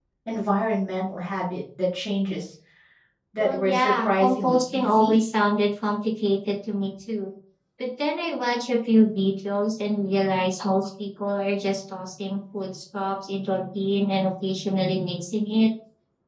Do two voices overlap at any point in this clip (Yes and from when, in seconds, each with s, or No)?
Yes, from 3.4 s